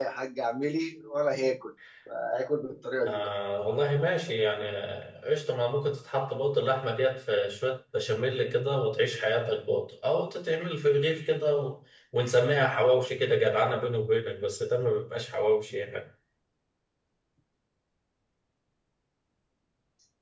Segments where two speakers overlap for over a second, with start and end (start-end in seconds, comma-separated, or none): none